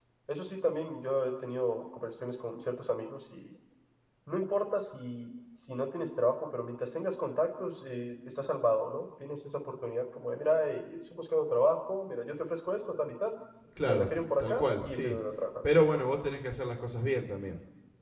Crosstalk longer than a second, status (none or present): present